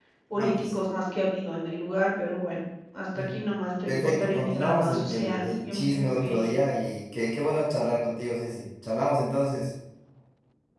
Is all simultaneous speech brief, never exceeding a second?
No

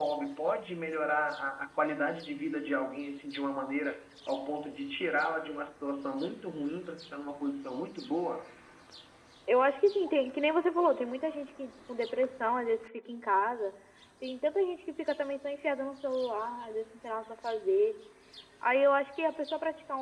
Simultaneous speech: No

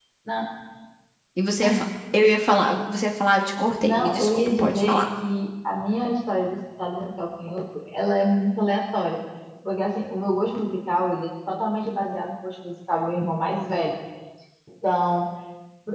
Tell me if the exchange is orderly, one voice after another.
No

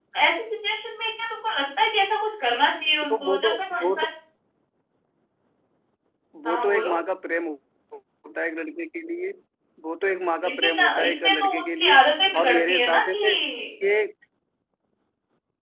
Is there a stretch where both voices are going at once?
Yes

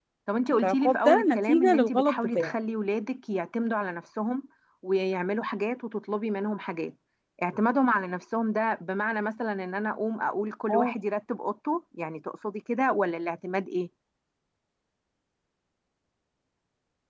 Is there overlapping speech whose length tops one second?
Yes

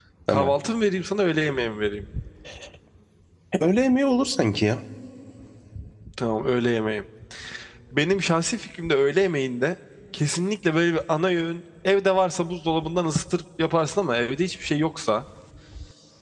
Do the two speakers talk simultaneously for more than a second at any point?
No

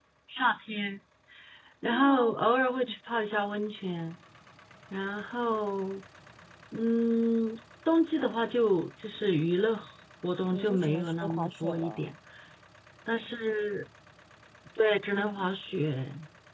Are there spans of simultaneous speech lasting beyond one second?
Yes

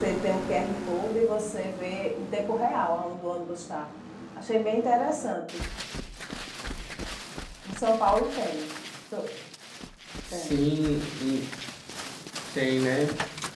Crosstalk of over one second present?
No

